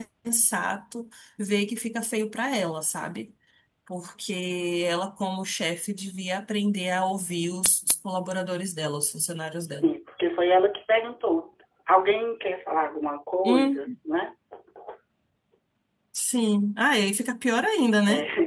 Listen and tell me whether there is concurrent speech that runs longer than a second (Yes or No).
No